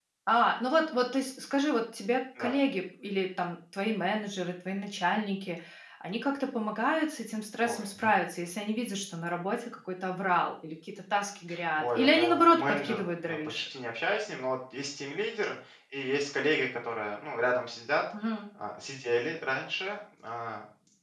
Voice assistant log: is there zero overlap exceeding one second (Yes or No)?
No